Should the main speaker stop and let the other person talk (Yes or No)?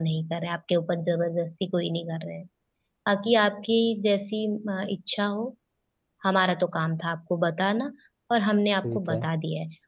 No